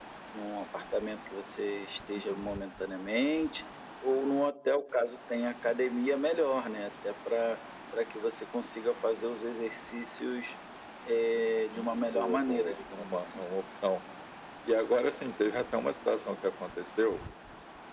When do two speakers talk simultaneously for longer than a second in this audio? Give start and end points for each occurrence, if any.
11.5-13.4

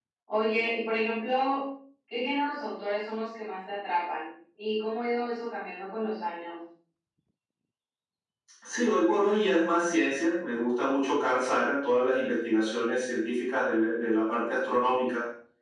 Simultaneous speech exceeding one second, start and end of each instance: none

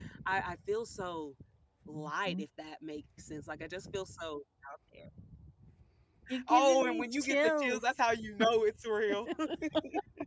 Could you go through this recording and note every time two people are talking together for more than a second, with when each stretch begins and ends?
6.5-7.8

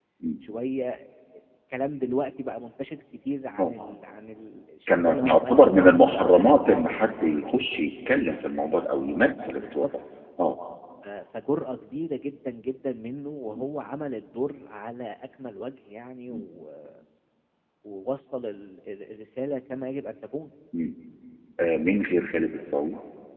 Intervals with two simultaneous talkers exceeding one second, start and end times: 4.9-6.6

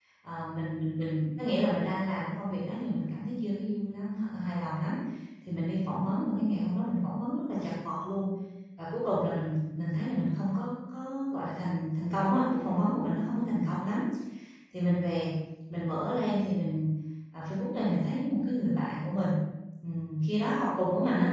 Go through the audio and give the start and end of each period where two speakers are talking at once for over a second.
none

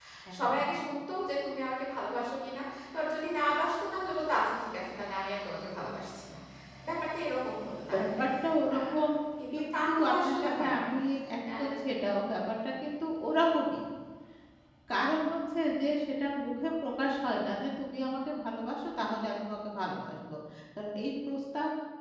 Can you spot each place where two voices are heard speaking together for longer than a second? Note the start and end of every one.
9.5-10.9

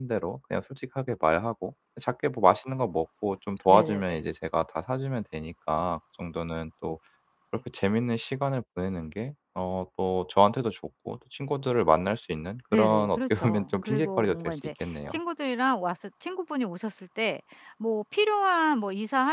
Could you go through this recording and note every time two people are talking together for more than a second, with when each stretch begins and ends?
12.7-14.9

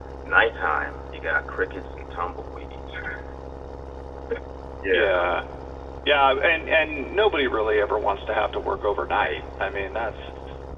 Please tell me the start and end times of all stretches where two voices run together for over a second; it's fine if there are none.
none

